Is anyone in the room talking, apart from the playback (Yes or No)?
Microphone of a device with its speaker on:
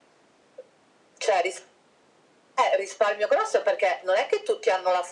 No